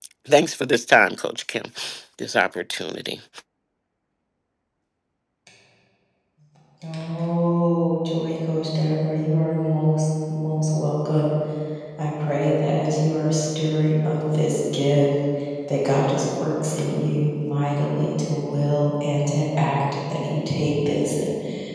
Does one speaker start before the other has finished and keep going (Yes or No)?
No